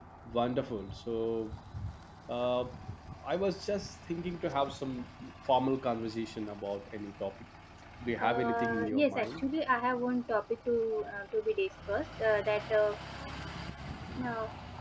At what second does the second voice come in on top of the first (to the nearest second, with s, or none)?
8 s